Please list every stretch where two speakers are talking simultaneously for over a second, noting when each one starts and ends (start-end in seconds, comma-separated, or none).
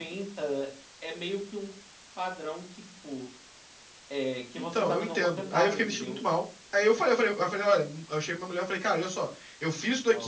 4.6-6.2